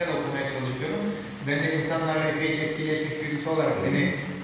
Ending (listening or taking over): listening